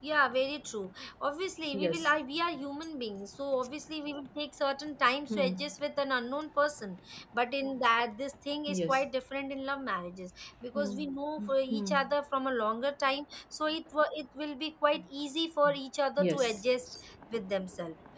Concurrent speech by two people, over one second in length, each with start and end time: none

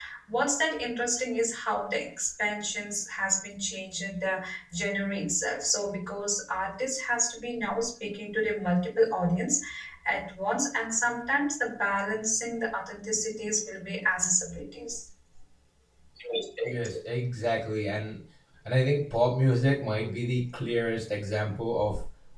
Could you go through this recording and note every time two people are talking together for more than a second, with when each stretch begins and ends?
none

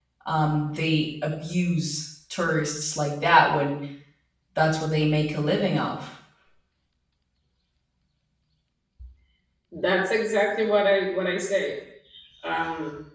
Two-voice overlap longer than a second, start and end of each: none

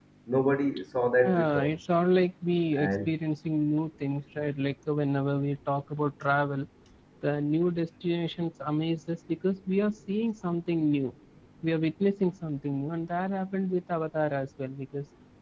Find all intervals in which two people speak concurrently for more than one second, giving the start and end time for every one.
none

